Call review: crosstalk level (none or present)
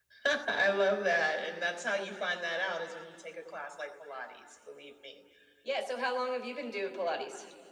none